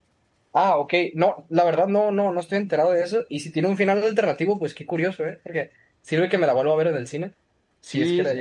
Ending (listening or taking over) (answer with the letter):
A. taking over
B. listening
A